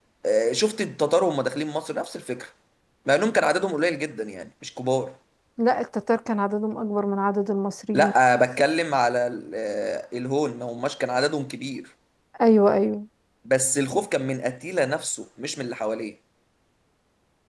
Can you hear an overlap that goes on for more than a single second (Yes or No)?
No